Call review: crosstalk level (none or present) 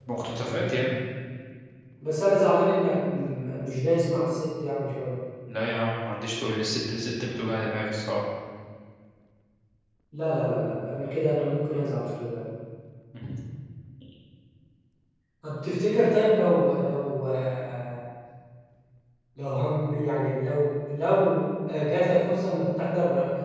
none